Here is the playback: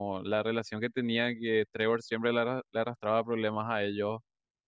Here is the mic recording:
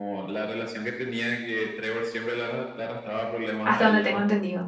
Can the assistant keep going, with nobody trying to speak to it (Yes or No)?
No